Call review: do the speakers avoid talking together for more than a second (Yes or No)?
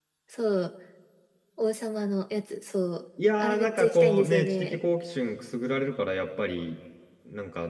No